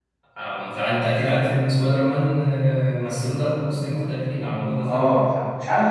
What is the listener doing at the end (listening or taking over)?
taking over